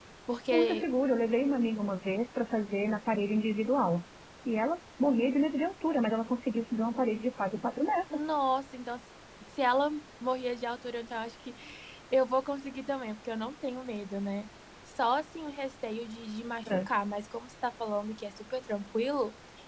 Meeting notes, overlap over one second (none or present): none